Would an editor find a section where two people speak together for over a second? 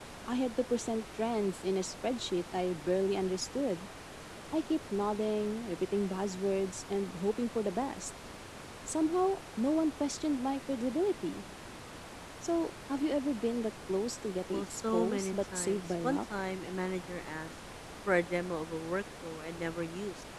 Yes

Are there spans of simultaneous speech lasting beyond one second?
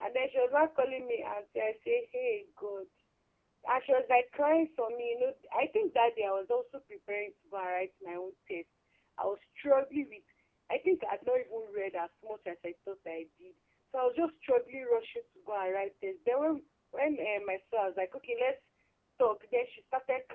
No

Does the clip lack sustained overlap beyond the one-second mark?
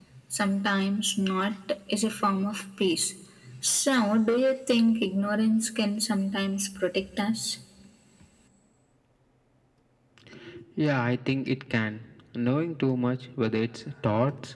Yes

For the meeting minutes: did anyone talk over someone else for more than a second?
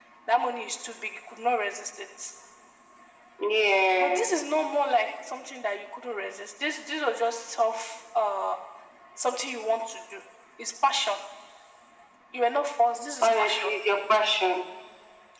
No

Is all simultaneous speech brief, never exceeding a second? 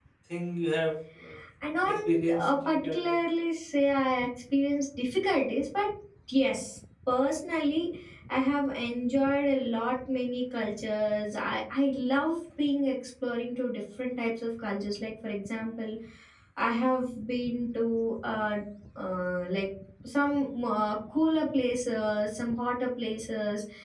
No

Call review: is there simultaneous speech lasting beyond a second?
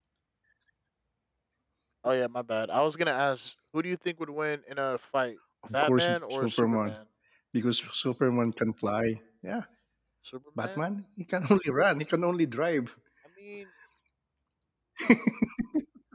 Yes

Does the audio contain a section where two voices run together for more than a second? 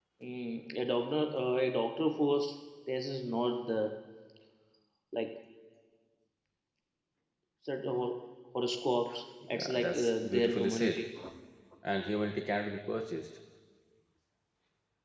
Yes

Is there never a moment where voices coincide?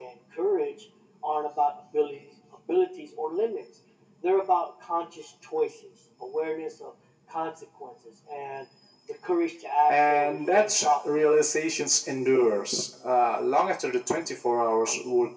No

